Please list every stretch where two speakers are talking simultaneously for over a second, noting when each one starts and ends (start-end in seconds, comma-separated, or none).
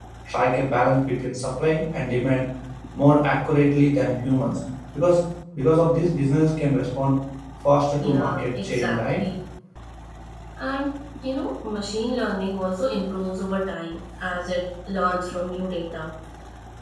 8.0-9.2